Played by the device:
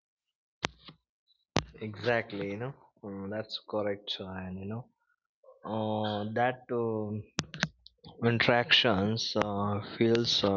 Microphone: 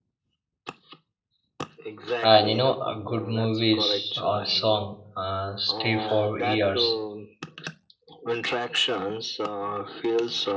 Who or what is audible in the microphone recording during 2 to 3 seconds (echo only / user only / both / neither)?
both